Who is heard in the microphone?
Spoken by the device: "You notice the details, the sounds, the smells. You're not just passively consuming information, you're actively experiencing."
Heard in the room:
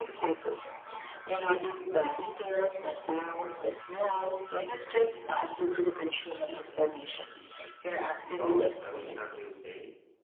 both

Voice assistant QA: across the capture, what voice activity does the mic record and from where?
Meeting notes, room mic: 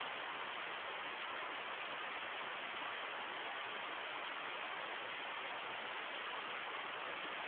neither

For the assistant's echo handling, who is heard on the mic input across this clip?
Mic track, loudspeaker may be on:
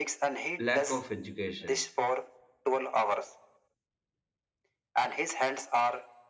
both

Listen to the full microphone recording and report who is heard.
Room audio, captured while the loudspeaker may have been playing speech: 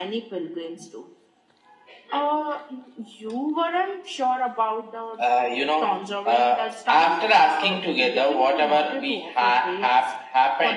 echo only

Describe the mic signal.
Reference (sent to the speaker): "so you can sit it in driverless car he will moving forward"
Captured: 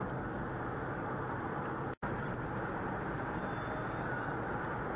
neither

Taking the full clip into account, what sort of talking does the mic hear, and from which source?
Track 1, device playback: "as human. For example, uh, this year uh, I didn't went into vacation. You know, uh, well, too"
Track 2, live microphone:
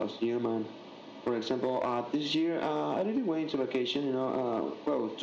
echo only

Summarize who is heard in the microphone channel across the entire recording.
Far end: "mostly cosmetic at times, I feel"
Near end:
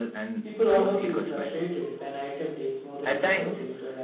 both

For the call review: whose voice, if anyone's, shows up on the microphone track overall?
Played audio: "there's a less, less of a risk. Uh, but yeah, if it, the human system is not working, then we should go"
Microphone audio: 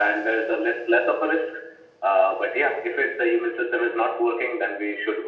echo only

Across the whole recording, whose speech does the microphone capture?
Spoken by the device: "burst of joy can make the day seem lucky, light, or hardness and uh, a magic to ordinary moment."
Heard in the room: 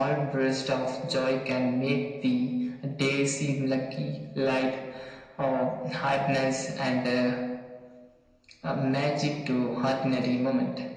echo only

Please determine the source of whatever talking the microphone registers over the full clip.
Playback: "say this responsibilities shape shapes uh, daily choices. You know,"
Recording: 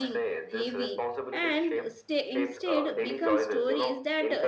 both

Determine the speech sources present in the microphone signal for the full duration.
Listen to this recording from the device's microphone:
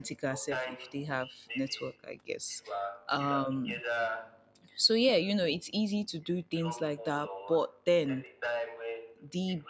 both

